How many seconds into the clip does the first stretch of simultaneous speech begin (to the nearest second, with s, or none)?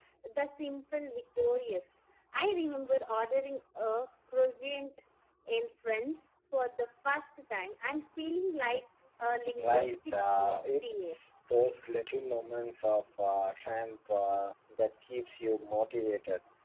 10 s